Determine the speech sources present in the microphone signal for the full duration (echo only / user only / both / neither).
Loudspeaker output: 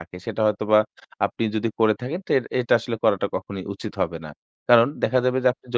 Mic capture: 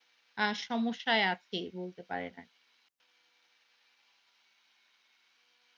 user only